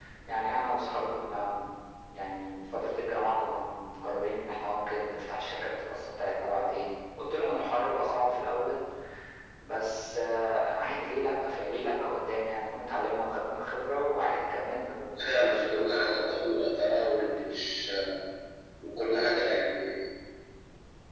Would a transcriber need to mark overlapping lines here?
Yes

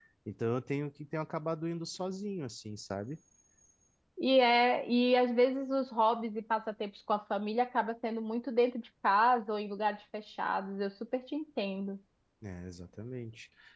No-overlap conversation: Yes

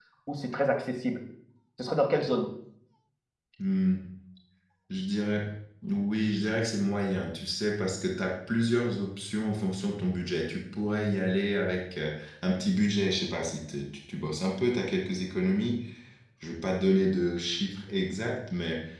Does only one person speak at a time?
Yes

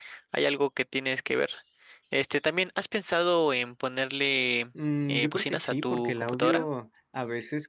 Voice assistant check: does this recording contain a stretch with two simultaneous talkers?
Yes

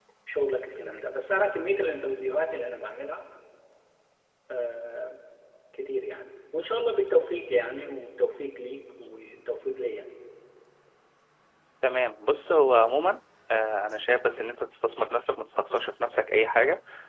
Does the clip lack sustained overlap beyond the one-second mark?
Yes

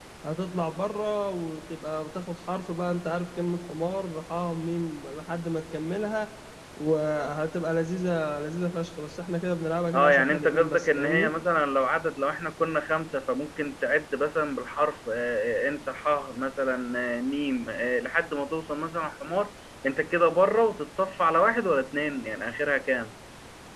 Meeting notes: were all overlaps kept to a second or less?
No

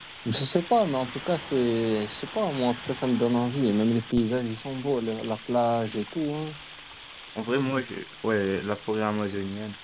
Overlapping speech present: No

